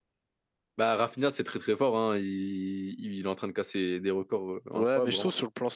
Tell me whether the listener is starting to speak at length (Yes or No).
Yes